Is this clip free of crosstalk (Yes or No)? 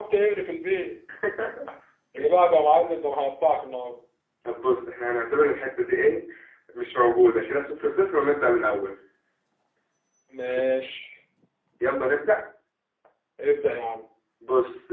Yes